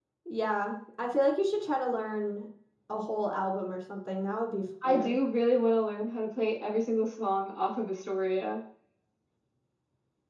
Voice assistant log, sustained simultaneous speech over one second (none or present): none